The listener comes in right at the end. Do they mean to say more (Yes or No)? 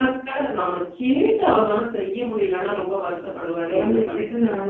Yes